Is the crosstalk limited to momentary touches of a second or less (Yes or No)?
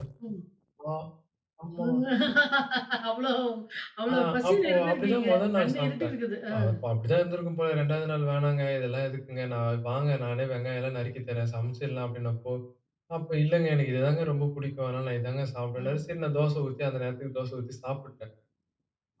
No